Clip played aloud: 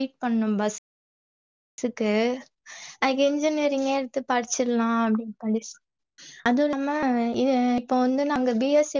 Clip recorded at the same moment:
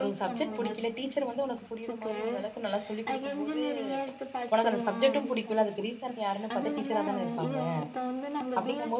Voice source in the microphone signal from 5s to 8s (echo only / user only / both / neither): both